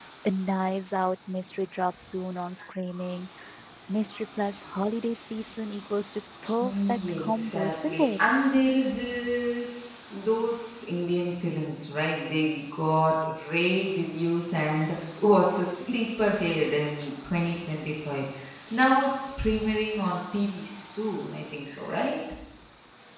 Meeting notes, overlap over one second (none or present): present